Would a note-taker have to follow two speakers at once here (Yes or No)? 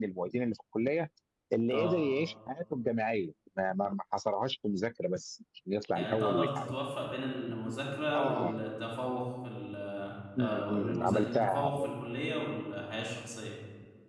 Yes